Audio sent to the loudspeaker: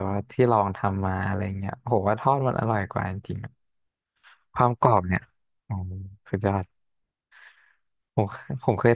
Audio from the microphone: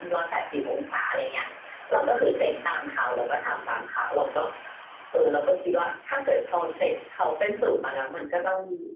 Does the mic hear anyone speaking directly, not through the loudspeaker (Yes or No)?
Yes